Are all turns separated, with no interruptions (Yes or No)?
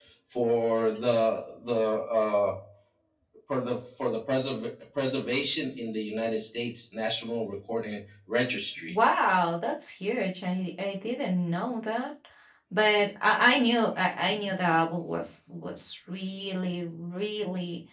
Yes